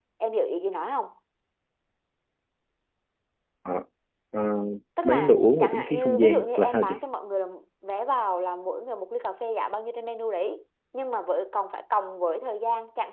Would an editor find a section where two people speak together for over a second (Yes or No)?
Yes